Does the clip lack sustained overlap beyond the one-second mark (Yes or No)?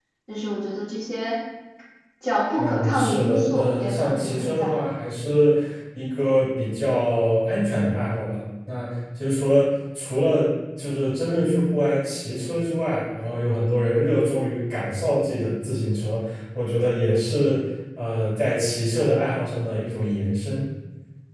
No